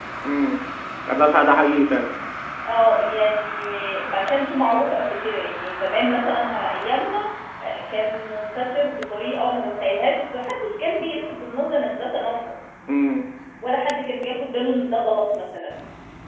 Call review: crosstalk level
none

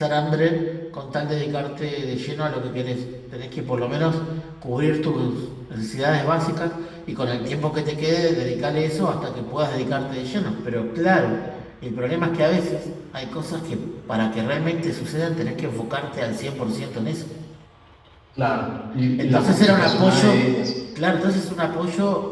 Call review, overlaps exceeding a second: present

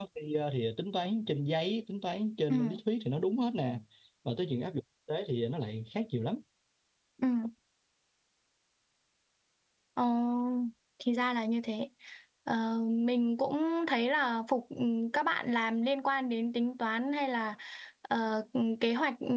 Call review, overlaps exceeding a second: none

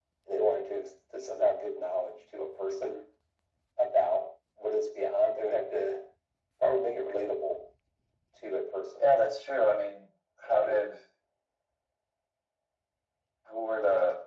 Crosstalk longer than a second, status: none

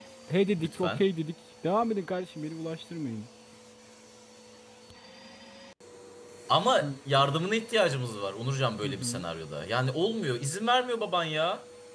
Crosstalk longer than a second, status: none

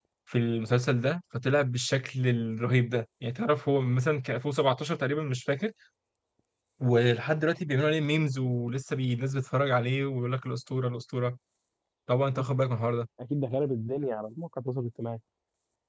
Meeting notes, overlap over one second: none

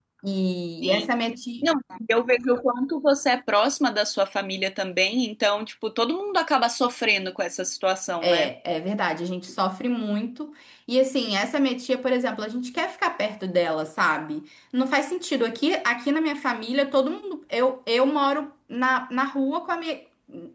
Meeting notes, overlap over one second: none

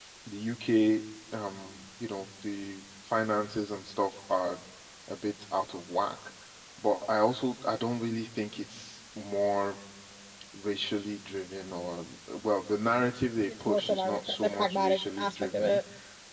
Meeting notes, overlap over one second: present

